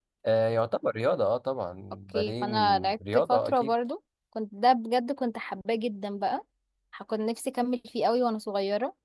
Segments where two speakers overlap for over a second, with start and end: 2.1-3.7

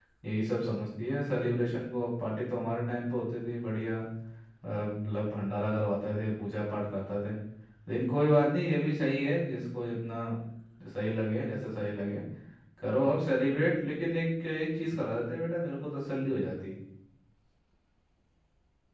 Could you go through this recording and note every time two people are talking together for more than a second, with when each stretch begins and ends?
none

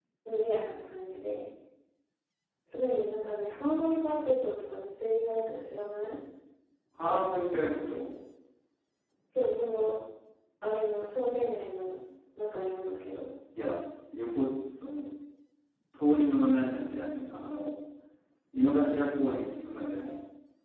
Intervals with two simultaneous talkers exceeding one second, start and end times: none

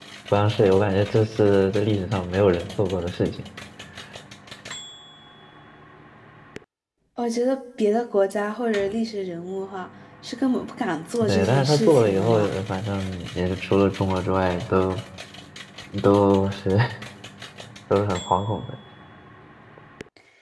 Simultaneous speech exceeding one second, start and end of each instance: 11.2-12.5

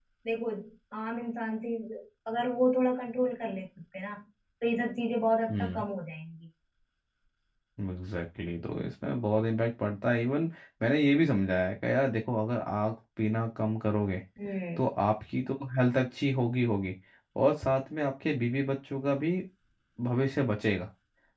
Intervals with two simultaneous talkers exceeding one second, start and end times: none

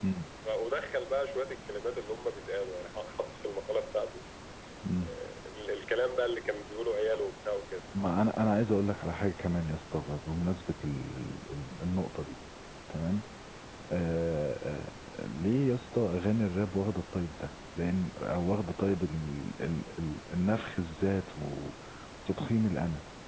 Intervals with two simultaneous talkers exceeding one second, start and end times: none

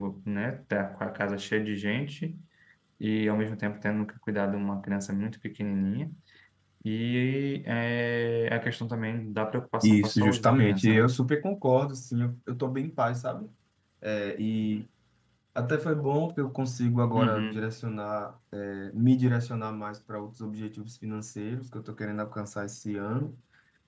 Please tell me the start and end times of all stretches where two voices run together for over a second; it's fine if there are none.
9.8-11.1

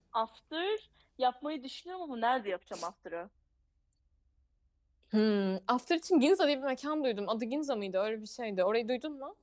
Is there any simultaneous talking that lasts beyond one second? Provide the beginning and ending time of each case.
none

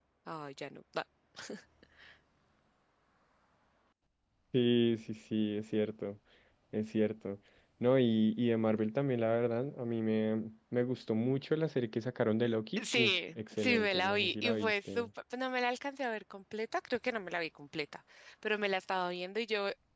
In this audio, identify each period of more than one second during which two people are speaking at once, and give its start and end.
12.8-15.1

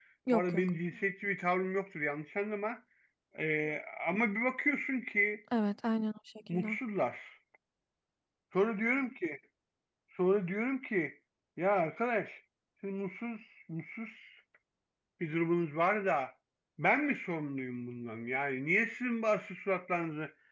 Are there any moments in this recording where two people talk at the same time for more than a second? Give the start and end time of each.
none

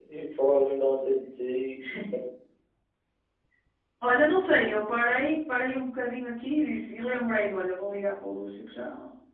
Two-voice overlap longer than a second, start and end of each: none

